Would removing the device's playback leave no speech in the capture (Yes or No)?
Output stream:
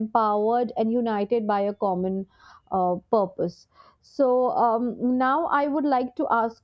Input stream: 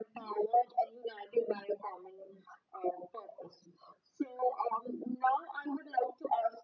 Yes